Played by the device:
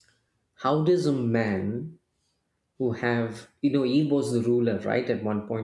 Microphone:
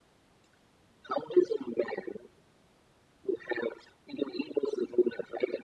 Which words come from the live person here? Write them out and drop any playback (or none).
none